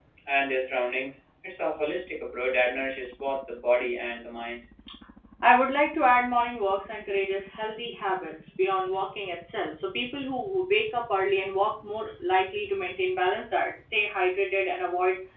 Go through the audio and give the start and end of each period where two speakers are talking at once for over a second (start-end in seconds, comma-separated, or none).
none